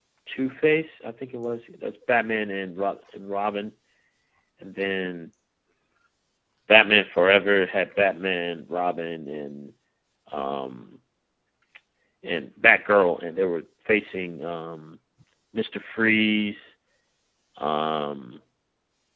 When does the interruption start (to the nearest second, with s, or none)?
none